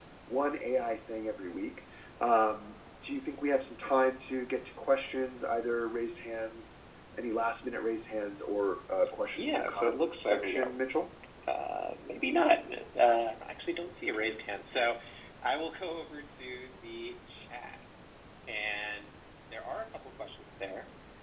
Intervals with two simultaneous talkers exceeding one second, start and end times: 9.3-10.7

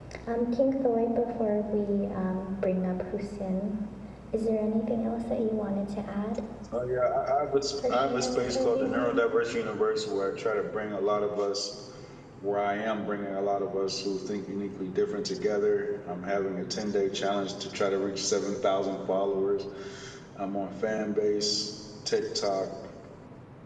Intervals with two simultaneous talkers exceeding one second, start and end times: 7.9-9.2

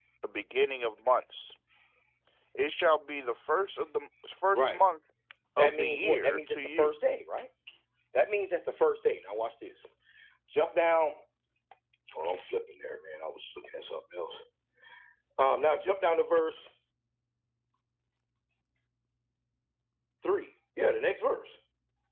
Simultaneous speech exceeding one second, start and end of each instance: 5.6-6.9

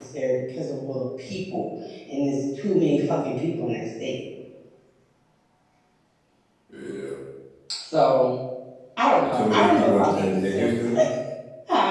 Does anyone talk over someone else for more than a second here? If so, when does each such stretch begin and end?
9.2-10.7

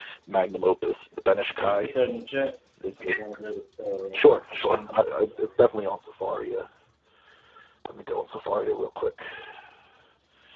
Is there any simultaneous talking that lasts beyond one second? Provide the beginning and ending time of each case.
none

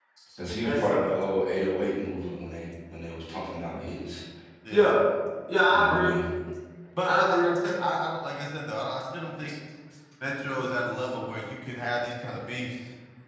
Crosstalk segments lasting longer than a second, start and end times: none

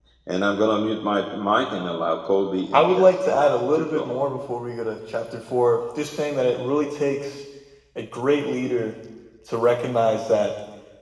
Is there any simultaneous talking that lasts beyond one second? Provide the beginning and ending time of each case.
2.7-4.2

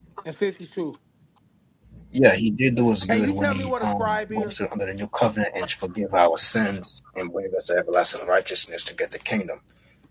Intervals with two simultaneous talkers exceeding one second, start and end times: 3.1-4.5

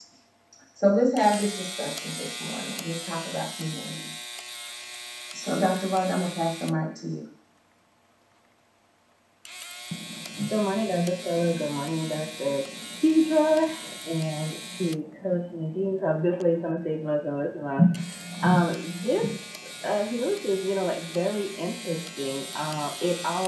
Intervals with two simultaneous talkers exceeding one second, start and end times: none

